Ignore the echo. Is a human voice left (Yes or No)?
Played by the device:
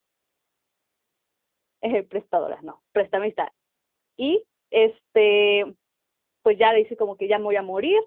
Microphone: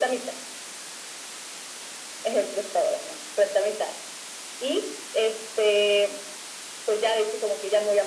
No